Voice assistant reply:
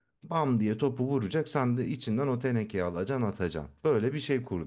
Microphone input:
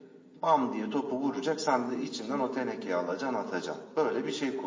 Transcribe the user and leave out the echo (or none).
none